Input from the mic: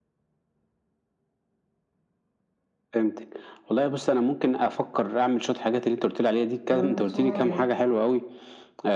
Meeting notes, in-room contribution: present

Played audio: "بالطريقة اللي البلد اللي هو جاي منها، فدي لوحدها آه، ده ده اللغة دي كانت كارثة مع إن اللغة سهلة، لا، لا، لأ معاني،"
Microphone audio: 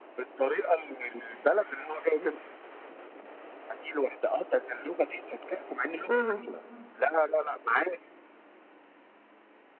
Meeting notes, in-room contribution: present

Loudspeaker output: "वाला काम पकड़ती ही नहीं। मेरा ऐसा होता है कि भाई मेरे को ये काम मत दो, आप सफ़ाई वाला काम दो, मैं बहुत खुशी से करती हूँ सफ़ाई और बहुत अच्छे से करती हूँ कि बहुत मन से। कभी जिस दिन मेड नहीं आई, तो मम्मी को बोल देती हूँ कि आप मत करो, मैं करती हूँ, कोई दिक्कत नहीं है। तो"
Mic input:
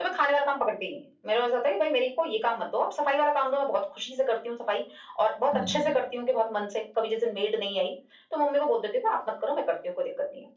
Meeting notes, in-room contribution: present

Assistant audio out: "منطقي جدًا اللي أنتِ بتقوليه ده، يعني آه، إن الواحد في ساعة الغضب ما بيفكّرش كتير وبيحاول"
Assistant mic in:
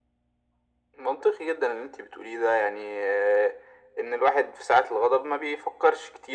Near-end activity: none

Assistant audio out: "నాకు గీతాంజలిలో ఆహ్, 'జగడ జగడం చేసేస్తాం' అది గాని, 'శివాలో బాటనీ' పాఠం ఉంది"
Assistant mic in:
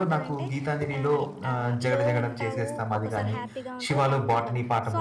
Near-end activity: present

